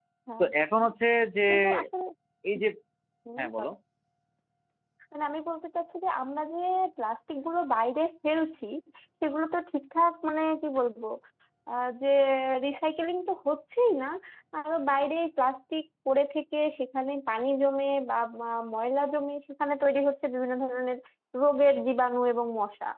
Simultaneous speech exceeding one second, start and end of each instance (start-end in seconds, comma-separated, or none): none